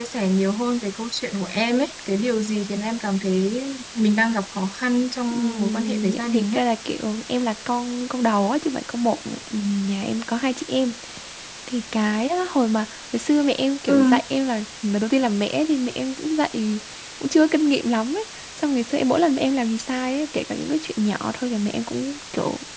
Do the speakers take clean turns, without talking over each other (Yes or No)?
No